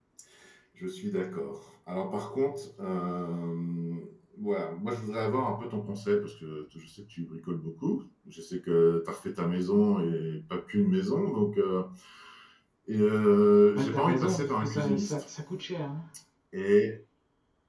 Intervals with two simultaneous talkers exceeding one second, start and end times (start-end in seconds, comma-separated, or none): 13.8-15.2